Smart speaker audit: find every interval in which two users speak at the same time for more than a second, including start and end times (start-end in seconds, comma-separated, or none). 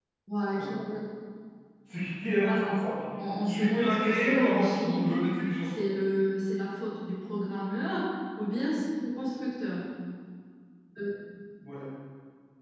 3.5-5.1